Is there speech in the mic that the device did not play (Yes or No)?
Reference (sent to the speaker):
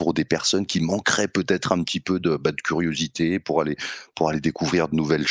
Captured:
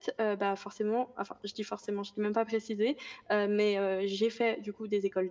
Yes